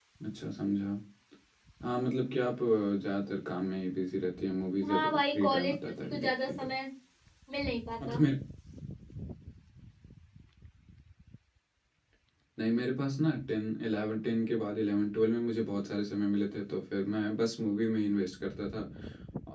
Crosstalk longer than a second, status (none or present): present